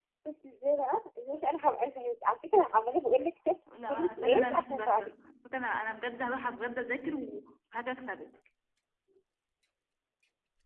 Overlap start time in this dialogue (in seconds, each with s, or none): 3.7 s